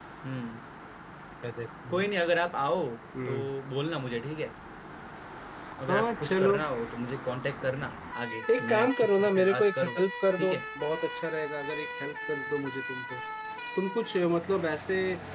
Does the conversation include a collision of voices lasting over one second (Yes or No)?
Yes